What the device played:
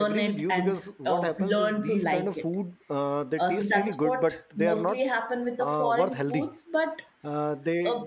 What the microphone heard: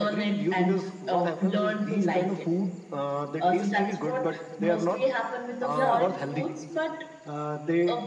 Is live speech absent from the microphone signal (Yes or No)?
No